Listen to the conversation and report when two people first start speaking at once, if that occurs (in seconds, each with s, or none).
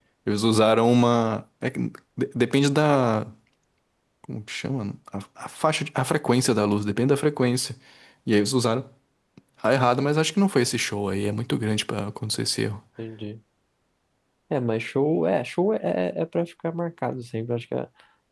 none